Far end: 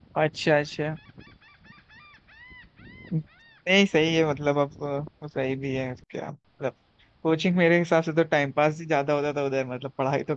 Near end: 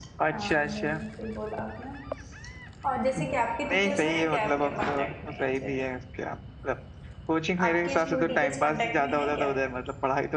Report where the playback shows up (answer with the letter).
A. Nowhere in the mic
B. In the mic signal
B